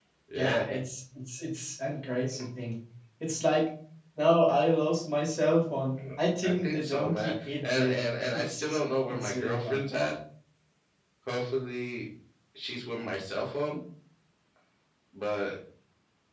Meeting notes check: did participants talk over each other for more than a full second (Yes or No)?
Yes